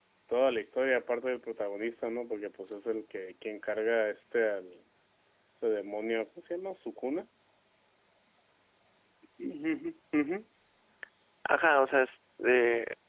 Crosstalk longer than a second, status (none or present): none